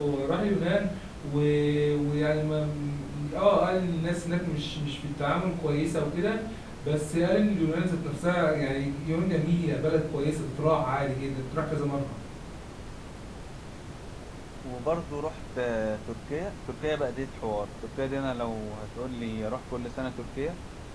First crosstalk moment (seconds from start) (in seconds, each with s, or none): none